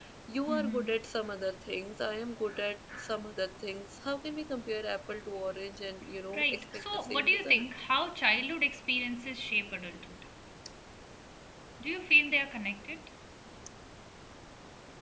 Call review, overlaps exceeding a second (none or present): present